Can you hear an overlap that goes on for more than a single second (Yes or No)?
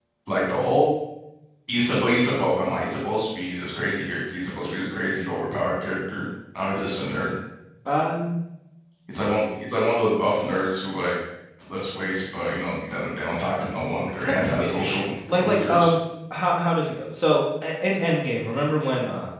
Yes